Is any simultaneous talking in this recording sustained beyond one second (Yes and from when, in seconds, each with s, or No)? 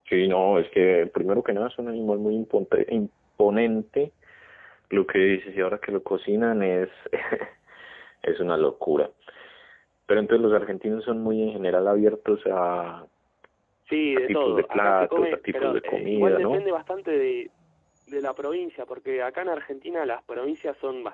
Yes, from 14.3 s